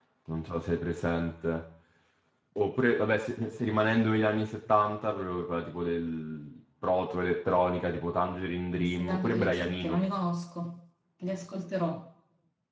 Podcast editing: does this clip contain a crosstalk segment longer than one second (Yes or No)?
Yes